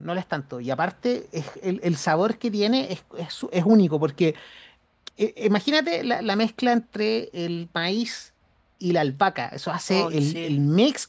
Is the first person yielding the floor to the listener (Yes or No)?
No